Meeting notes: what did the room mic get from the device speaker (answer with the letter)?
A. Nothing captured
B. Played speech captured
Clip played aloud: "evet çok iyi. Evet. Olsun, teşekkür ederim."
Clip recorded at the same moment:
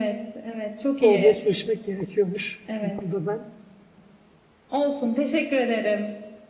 B